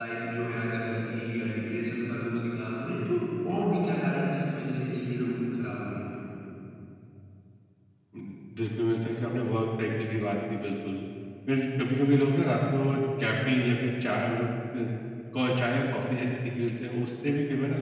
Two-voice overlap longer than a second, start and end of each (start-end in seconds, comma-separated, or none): none